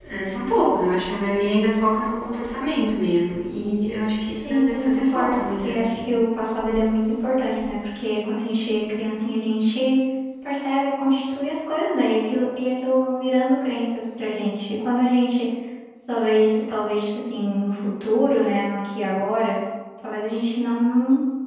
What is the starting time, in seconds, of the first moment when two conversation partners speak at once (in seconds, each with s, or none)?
4.4 s